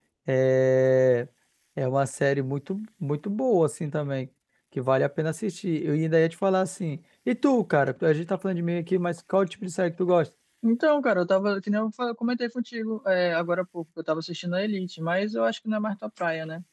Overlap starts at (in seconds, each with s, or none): none